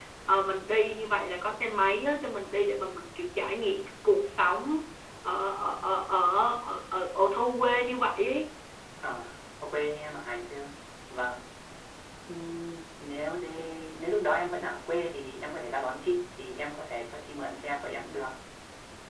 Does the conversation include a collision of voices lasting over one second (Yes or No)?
No